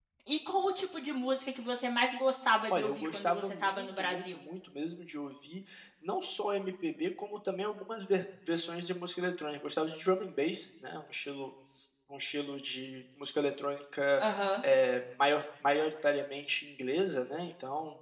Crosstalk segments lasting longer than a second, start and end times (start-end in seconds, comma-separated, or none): 2.7-4.4